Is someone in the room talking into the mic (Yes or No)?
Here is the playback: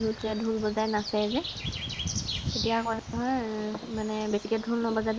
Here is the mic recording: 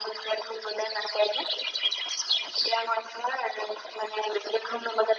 No